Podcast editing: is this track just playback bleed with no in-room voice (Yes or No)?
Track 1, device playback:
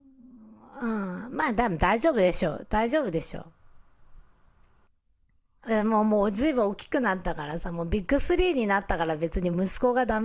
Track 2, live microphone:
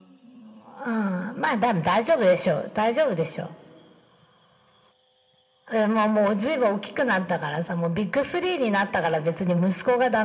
Yes